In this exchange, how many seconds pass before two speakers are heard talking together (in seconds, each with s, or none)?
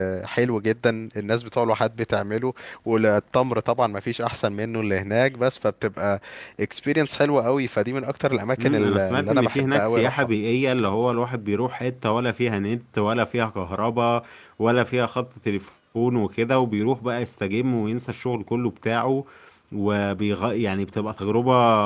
8.6 s